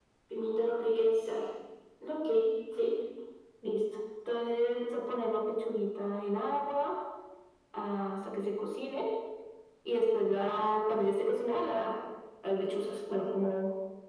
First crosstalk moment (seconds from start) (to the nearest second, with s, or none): none